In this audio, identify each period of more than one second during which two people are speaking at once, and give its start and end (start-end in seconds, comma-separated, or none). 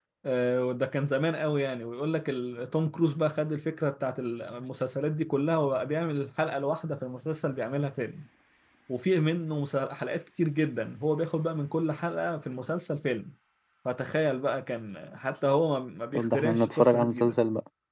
16.1-17.4